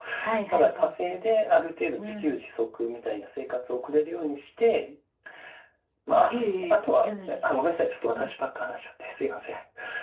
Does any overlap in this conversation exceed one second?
Yes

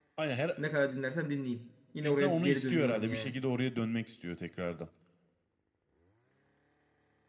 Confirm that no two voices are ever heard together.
No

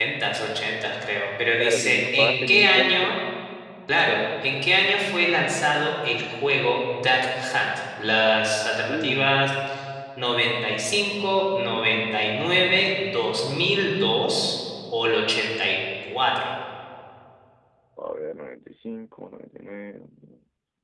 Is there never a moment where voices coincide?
No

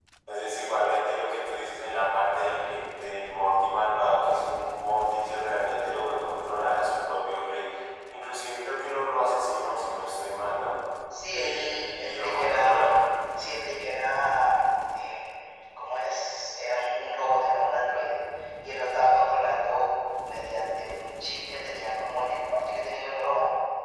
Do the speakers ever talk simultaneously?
Yes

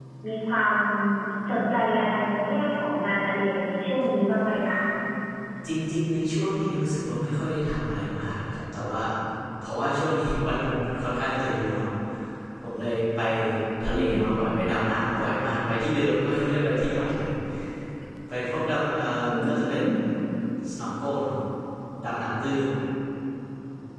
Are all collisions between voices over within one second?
Yes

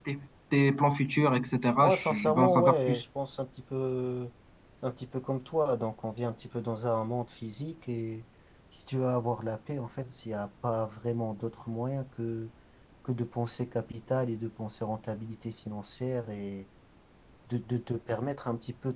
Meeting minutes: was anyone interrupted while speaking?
Yes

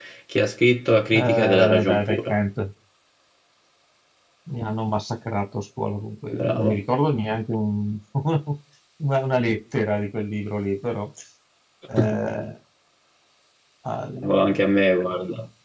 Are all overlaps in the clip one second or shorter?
No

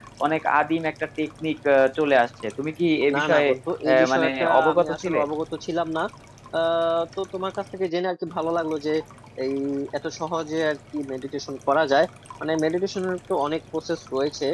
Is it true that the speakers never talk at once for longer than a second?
No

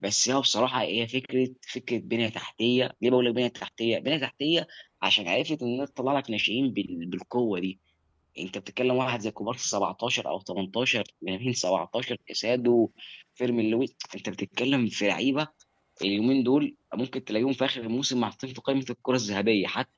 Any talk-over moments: No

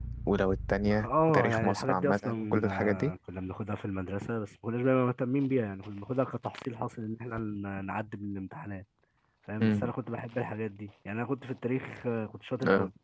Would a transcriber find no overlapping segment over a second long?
No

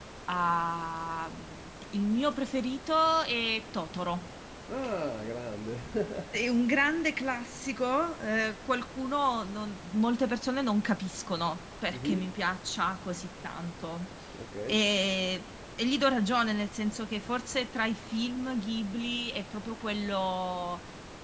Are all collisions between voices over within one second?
Yes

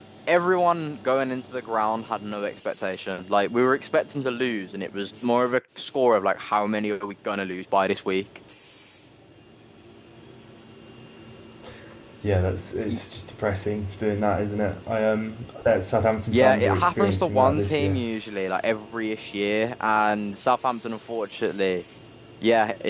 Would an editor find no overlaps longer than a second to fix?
No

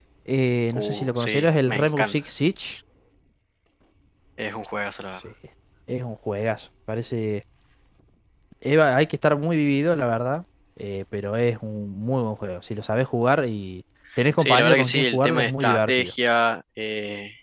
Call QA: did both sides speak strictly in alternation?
No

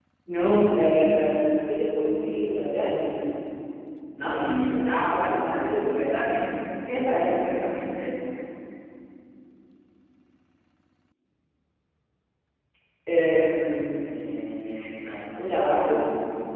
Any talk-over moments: Yes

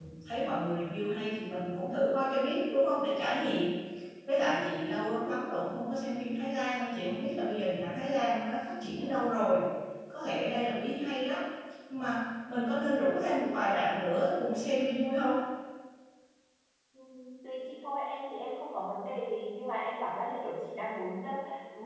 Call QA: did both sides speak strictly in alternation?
Yes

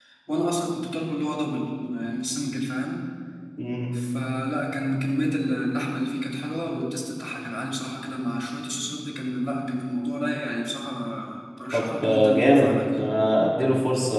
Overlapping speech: Yes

